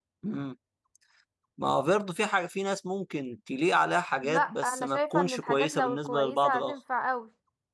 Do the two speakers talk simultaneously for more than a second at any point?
Yes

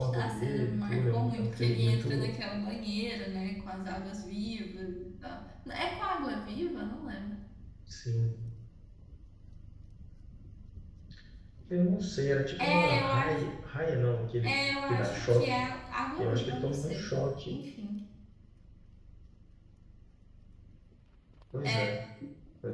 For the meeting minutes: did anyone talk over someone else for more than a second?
Yes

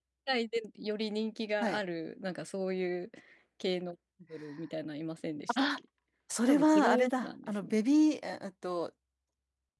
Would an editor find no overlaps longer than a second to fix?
No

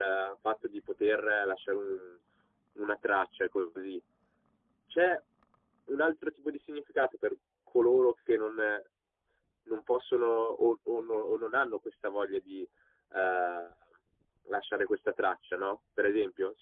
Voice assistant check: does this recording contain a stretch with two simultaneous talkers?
No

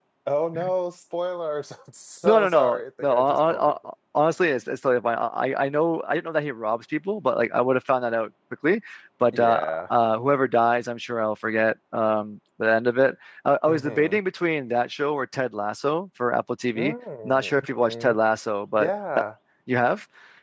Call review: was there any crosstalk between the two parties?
Yes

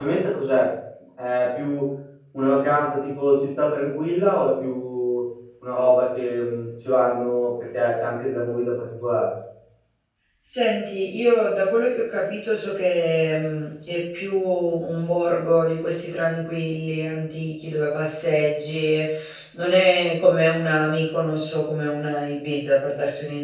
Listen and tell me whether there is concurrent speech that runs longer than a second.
No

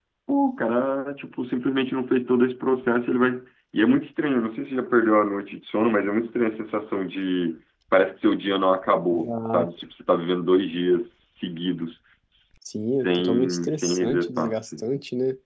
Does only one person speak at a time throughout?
No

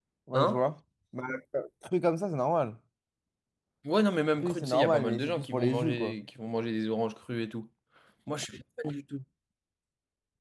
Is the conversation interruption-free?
No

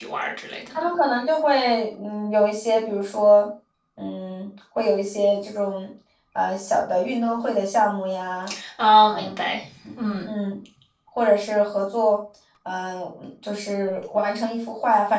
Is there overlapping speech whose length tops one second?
No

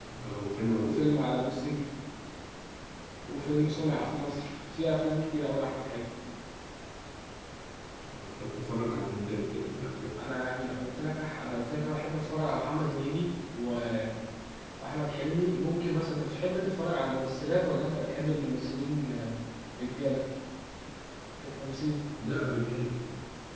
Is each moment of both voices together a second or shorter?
Yes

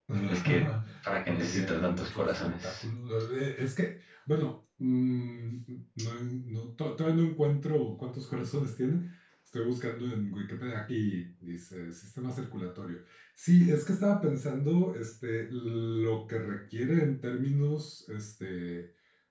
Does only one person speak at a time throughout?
No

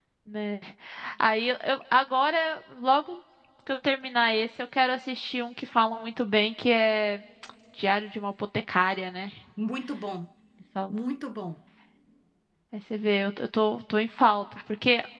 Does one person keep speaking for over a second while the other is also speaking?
No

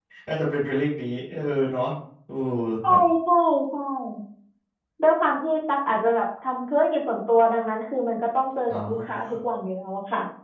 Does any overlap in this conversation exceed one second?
No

